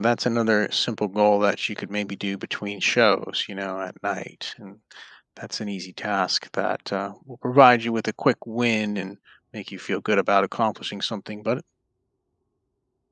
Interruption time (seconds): none

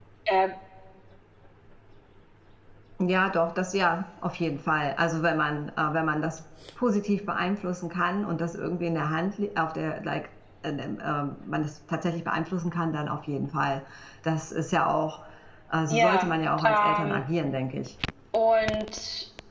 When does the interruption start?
15.9 s

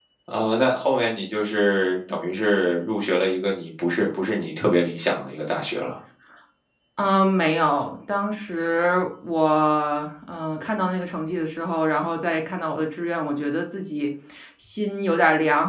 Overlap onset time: none

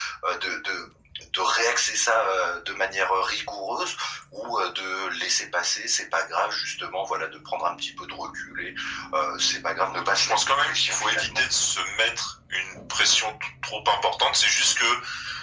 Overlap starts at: 10.1 s

